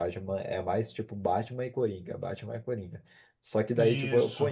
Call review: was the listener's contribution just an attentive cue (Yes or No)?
Yes